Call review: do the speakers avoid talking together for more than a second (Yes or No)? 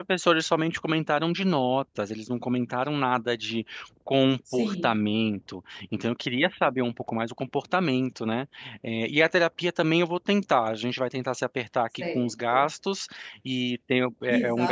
Yes